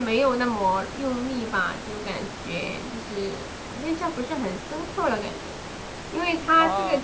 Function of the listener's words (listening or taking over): listening